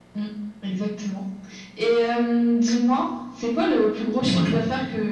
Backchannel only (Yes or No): Yes